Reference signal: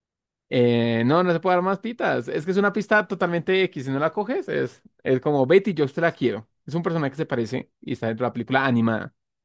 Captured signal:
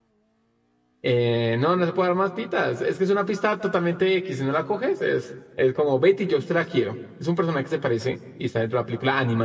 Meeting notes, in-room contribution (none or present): none